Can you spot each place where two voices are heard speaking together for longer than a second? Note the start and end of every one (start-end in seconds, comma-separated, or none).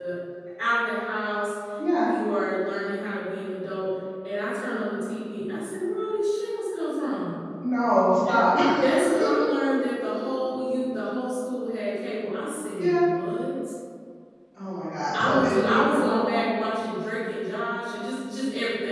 15.1-16.4